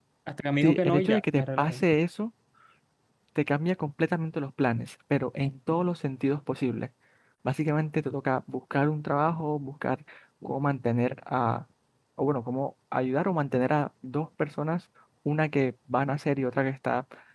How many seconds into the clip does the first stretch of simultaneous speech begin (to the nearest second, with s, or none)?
1 s